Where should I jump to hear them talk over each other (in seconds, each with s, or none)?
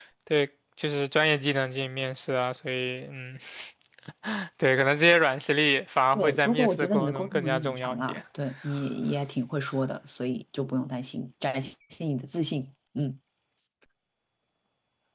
6.1 s